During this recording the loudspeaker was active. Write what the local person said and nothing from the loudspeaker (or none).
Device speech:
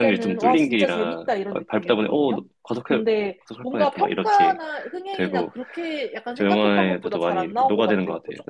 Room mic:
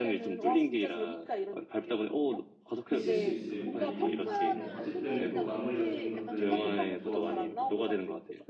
있을 수 있을 얘기인데, 어쨌든 마무리 같은 것들이 좋아서, 막